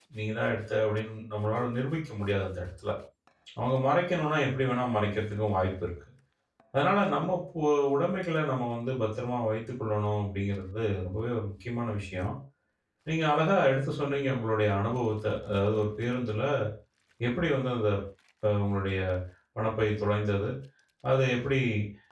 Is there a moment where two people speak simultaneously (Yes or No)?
No